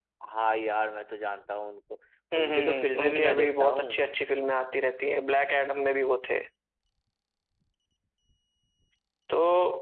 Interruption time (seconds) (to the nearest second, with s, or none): 2 s